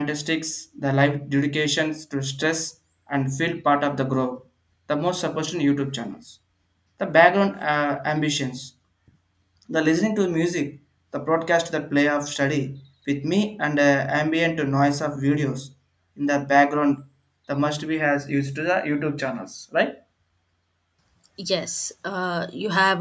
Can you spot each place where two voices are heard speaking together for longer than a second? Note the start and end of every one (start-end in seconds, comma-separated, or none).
none